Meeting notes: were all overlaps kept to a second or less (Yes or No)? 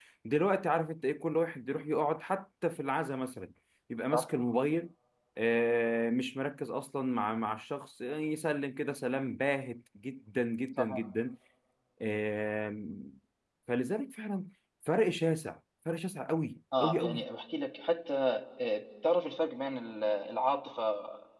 Yes